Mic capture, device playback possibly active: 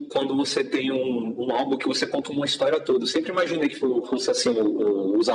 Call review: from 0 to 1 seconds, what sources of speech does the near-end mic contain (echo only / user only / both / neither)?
echo only